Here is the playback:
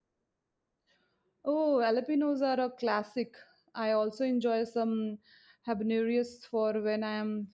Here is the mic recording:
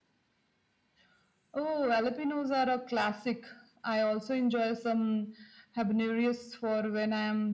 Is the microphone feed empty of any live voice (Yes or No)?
Yes